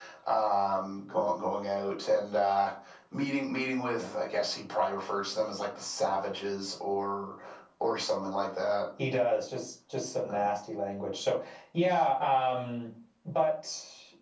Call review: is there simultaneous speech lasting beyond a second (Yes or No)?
No